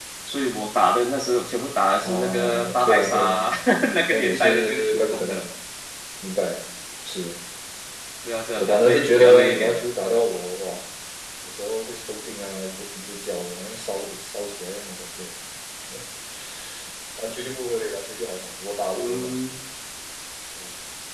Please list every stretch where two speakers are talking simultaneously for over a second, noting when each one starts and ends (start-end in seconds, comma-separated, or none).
2.0-3.4, 4.0-5.4, 8.6-9.8